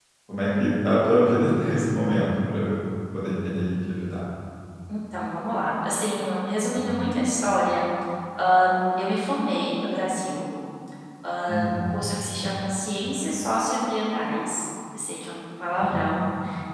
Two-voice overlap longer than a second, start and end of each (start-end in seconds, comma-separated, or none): none